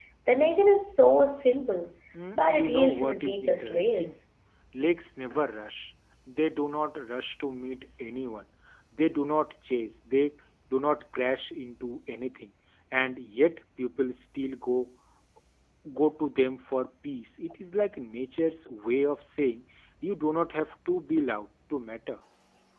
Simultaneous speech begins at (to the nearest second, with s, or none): 2 s